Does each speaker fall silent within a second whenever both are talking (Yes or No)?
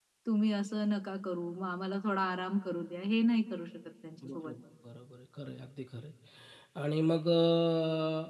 Yes